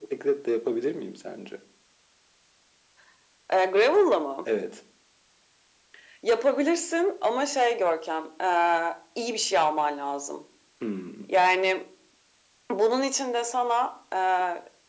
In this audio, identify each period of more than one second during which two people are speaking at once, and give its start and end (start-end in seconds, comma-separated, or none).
none